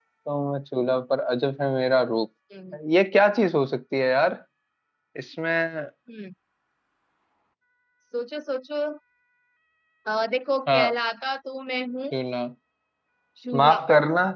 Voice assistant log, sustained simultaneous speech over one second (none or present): none